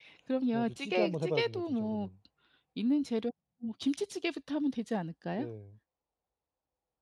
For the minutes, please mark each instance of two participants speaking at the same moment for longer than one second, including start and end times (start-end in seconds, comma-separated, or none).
0.5-2.1